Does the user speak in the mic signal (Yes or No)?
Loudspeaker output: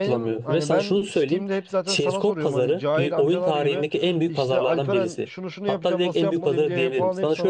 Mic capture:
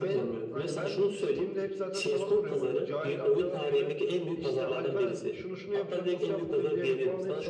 No